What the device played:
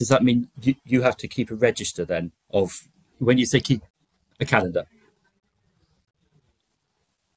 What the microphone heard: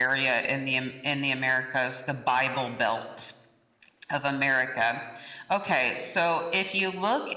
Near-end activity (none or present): present